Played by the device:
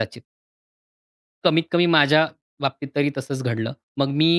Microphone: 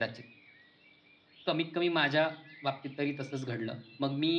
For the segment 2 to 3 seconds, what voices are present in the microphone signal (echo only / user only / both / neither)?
echo only